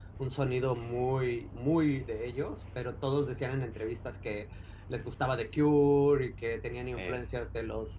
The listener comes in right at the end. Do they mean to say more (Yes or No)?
No